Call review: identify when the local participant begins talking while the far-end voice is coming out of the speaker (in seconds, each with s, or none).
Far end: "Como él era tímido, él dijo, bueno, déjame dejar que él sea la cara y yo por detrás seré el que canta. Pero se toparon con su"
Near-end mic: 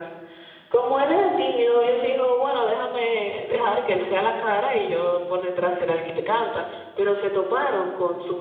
none